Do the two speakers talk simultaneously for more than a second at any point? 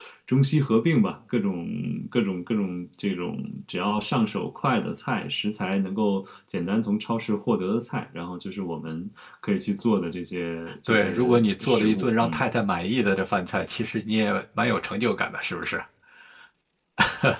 Yes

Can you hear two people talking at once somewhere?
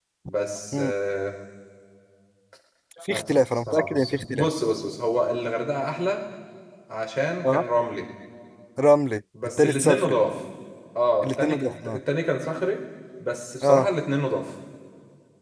Yes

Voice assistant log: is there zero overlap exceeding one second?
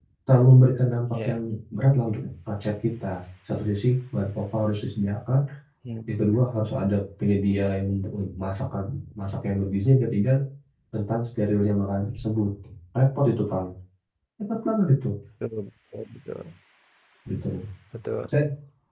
Yes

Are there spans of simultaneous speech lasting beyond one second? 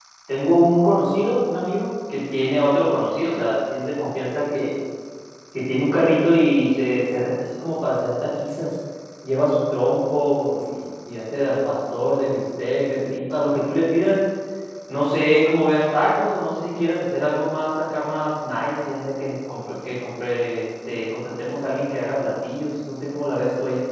No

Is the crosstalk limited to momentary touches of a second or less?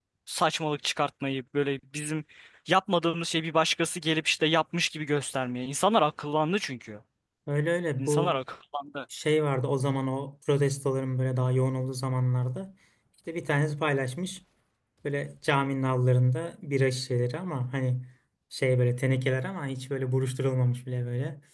Yes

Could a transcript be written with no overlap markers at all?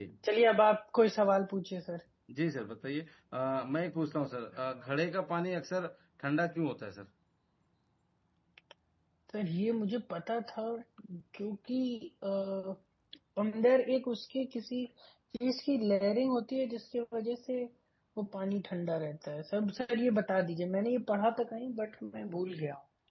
Yes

